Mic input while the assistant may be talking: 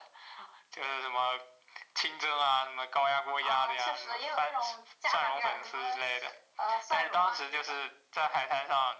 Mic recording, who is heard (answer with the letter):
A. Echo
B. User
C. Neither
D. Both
A